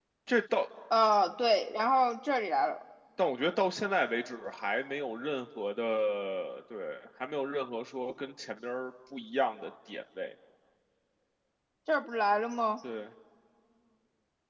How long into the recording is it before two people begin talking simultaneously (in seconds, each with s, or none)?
none